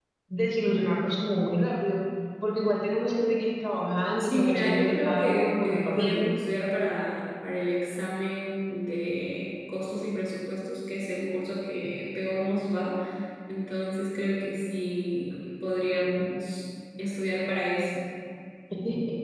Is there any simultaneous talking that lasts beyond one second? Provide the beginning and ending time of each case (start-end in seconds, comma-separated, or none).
4.2-6.3